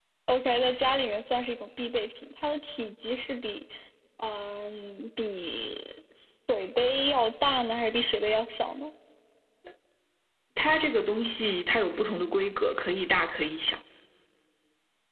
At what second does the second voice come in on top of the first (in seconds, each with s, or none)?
none